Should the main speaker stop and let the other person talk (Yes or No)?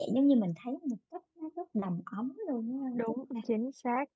Yes